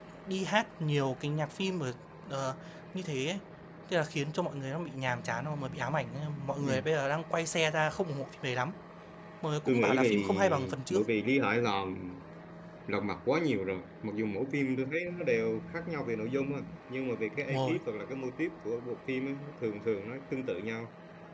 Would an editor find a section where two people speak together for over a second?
Yes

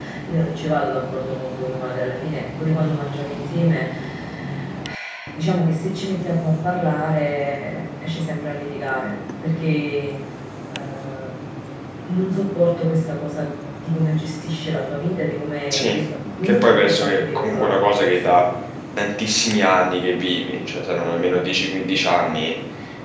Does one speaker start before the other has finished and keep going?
Yes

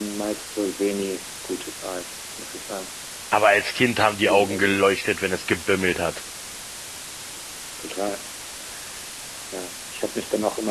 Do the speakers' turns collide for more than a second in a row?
No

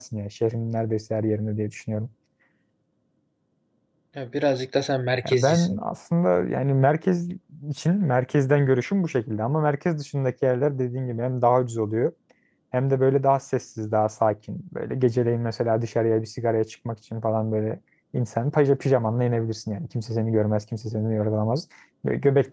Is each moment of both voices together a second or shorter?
Yes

